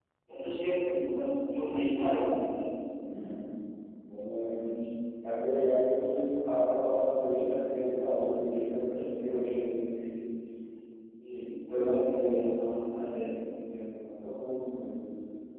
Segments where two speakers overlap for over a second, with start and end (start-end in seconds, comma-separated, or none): none